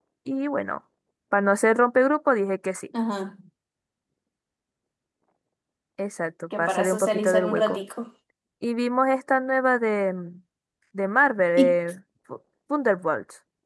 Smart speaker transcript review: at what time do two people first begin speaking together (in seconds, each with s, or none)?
6.6 s